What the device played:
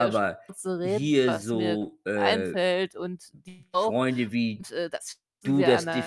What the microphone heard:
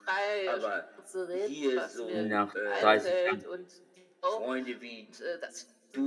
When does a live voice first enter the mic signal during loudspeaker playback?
2.1 s

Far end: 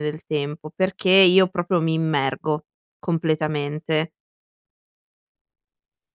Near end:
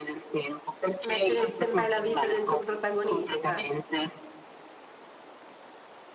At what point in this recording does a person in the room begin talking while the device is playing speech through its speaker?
1.0 s

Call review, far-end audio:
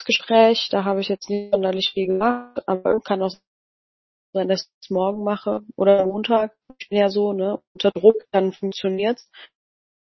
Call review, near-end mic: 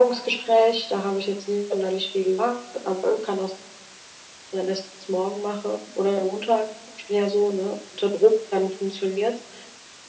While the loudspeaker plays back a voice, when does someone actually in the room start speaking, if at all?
none

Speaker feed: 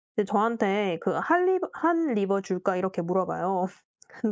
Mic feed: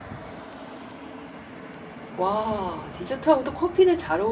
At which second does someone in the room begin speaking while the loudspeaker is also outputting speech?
2.1 s

